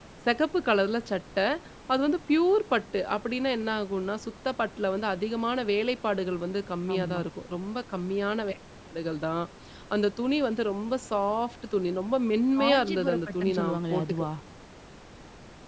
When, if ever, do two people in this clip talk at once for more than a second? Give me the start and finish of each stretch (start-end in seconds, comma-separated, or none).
12.6-14.1